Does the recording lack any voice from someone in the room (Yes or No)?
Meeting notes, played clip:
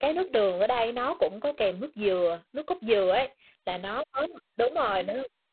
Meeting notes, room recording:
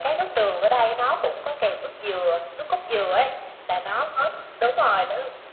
Yes